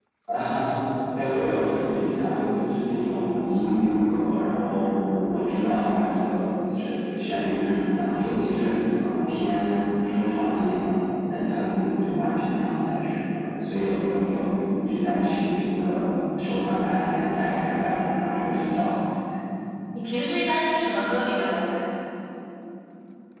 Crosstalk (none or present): none